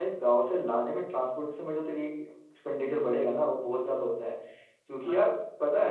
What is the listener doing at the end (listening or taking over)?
listening